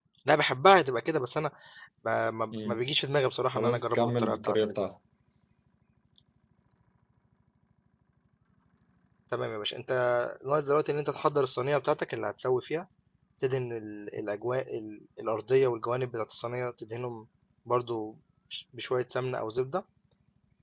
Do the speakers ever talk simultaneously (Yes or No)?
Yes